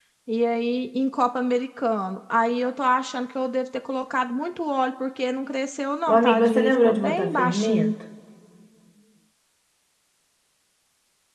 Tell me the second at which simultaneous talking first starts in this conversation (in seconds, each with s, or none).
6.1 s